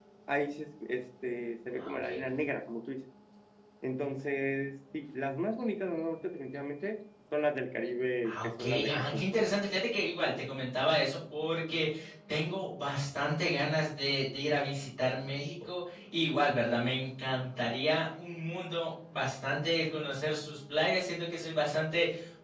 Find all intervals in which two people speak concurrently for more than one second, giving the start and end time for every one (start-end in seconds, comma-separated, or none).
8.3-9.6